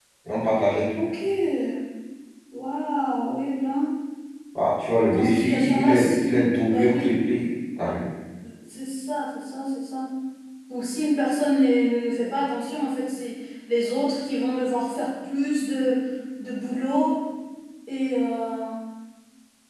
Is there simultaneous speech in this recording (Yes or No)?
Yes